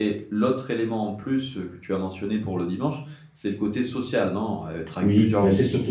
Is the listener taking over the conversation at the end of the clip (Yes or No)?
Yes